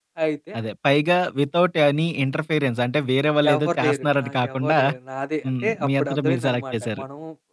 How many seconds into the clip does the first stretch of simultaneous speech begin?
3.5 s

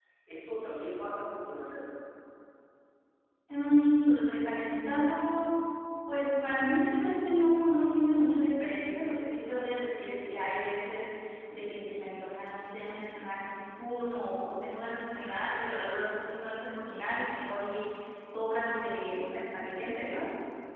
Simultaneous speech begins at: none

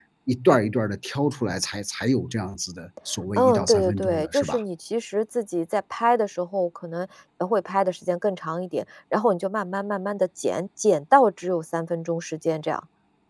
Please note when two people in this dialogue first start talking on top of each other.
3.4 s

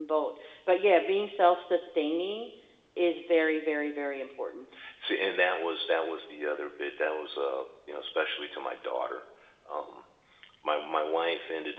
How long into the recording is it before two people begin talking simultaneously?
none

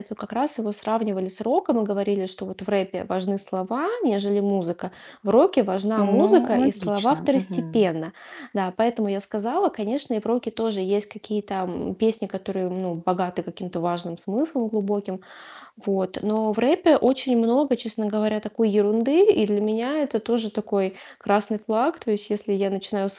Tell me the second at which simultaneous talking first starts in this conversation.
6.0 s

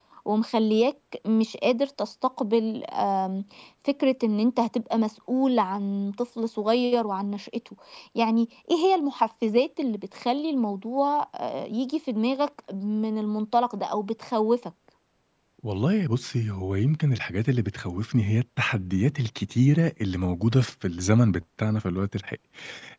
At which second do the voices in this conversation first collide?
none

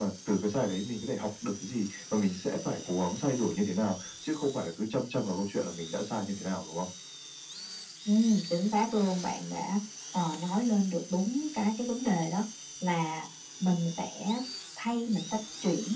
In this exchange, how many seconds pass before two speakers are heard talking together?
none

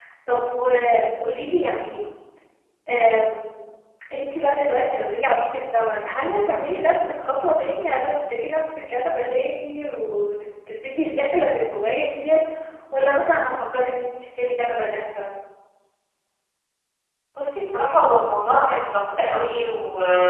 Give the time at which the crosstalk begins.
none

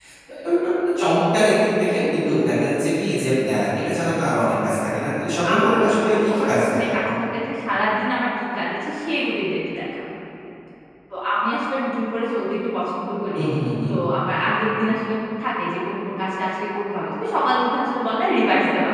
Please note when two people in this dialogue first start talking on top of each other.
5.4 s

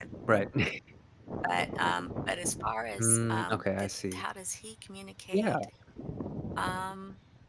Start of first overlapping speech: 3.0 s

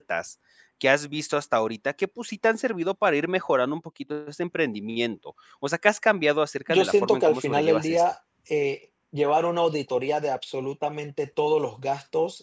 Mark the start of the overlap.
6.7 s

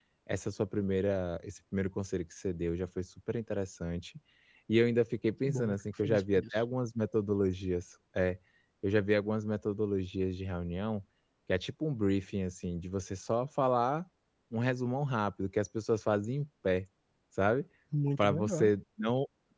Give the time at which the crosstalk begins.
5.4 s

